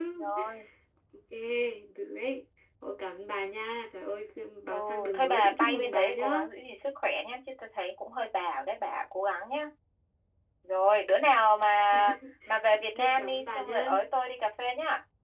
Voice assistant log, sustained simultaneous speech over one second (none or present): present